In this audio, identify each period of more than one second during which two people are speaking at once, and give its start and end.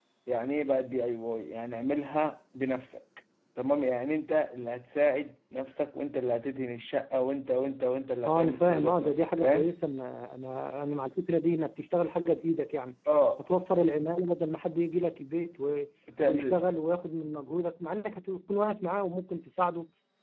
8.2-9.7

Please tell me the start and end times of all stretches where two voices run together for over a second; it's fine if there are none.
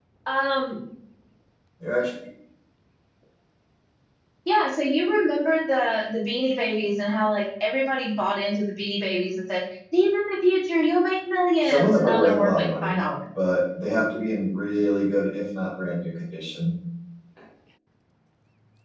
11.6-13.0

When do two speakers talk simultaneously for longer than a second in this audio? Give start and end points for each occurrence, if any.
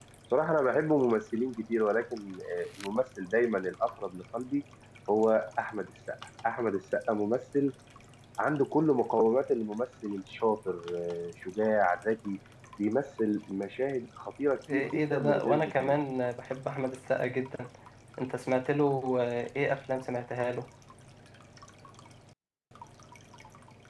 14.7-16.0

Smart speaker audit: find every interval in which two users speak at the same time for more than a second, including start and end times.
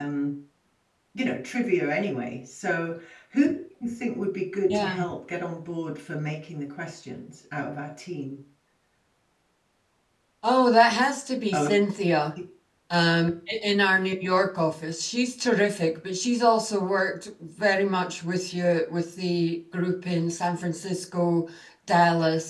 none

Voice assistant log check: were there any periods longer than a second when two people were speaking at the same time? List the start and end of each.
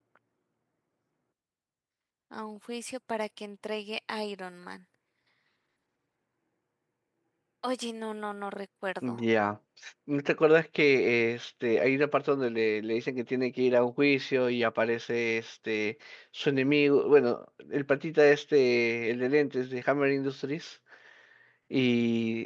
none

